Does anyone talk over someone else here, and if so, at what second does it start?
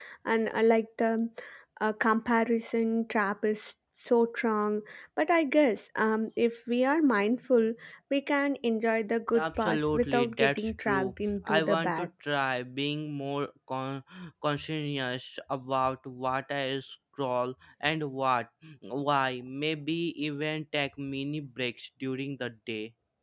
9 s

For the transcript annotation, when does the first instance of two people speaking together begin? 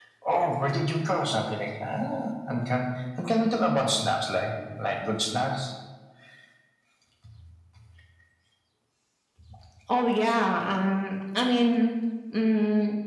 none

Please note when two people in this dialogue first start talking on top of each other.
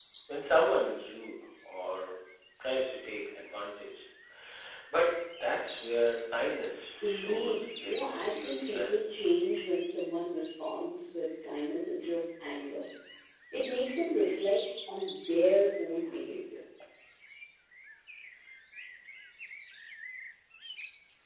7 s

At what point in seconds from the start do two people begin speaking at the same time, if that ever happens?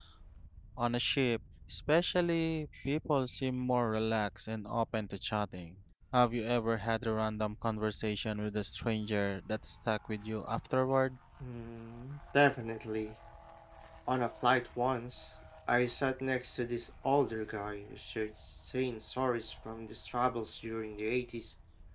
none

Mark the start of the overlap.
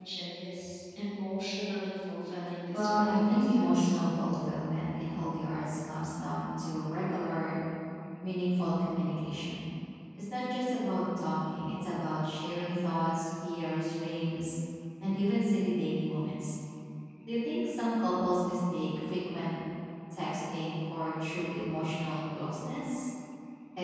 3 s

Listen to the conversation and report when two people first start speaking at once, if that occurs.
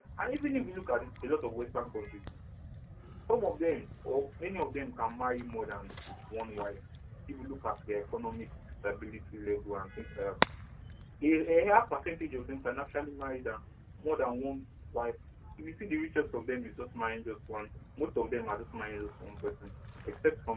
none

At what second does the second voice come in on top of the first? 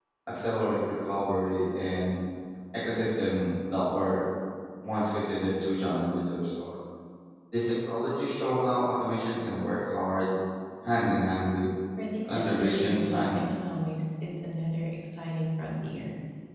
12 s

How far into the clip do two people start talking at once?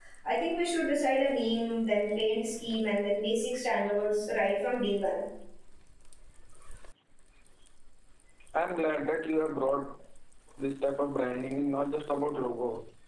none

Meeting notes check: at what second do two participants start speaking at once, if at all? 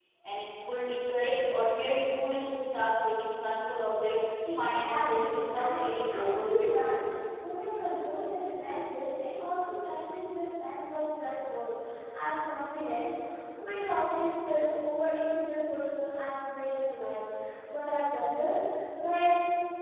4 s

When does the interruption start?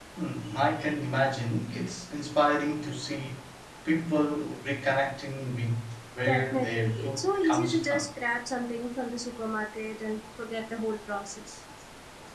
6 s

